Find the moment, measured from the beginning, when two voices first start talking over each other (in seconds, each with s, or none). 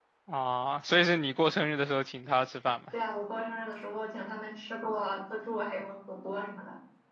none